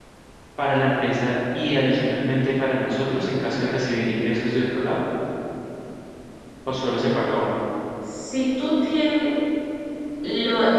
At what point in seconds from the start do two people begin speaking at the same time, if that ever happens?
none

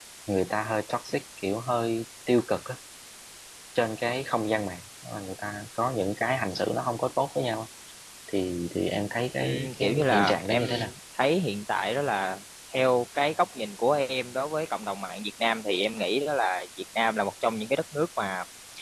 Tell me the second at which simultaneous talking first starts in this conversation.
9.3 s

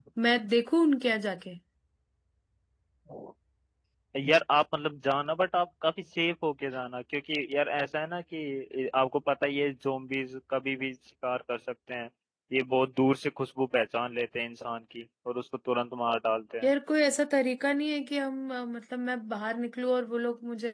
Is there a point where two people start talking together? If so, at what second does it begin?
none

